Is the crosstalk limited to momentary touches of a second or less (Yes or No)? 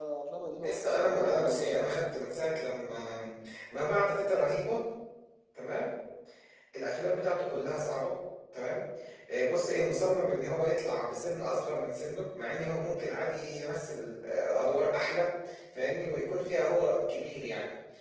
No